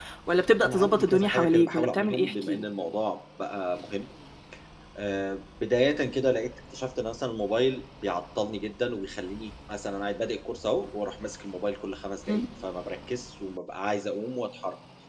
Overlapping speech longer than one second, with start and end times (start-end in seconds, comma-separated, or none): 0.6-2.6